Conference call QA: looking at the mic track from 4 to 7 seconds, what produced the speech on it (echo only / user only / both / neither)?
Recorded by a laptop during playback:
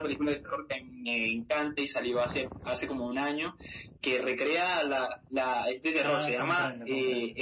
both